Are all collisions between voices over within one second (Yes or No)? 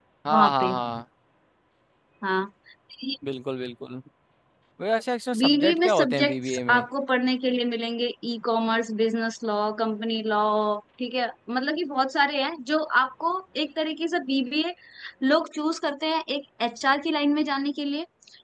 No